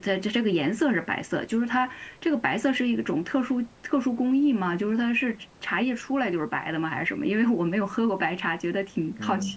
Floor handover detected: Yes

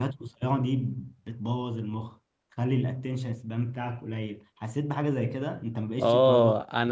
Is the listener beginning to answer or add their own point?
Yes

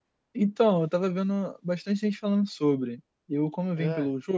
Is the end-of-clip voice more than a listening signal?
No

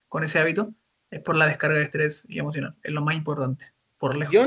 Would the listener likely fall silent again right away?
No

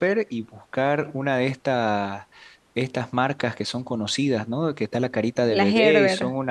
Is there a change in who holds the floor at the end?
No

